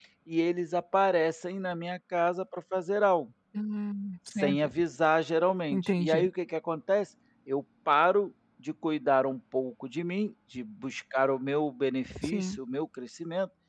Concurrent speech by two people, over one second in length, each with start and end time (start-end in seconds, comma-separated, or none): none